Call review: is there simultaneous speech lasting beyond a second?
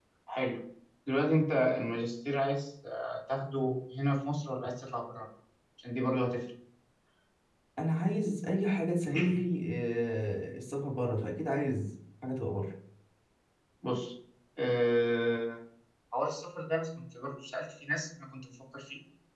No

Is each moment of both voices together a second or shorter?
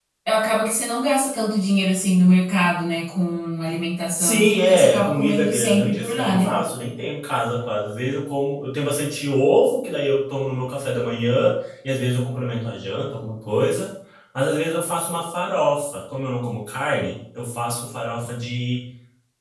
No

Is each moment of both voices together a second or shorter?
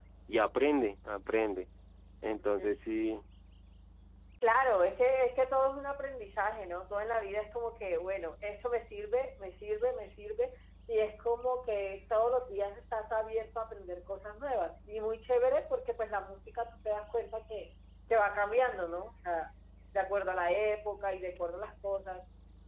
Yes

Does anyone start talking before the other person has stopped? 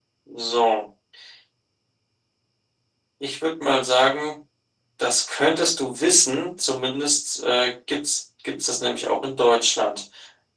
No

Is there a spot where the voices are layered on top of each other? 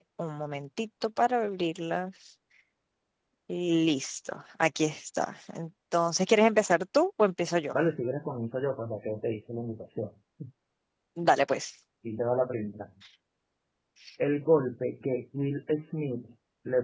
No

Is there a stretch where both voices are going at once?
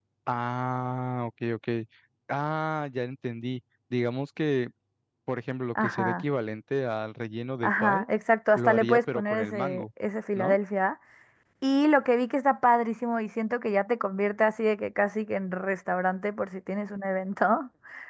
Yes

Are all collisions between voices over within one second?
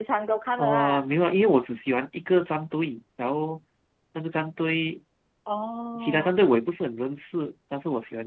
Yes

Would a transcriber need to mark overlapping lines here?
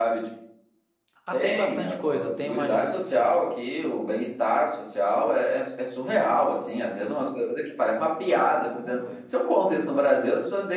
Yes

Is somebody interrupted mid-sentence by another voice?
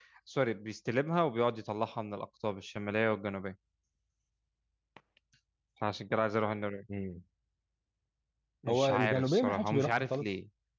Yes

